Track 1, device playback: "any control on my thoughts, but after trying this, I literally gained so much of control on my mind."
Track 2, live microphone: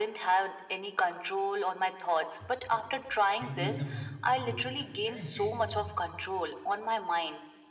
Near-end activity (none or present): present